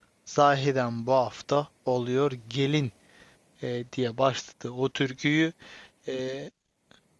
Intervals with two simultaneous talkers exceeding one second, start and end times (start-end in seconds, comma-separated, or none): none